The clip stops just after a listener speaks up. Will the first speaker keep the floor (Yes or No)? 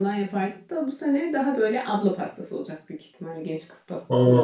No